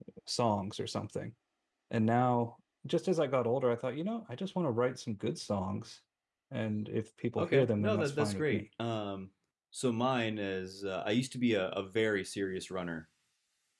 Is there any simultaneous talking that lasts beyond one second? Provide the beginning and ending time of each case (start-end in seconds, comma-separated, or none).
7.4-8.6